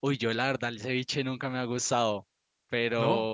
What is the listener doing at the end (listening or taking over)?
listening